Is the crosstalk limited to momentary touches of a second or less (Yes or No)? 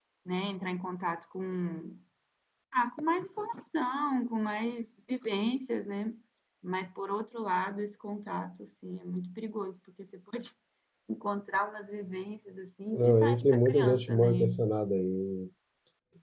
No